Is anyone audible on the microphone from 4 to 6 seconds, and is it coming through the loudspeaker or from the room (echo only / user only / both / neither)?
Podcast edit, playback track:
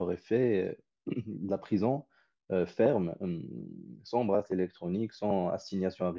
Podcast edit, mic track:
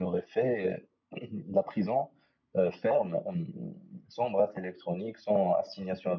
echo only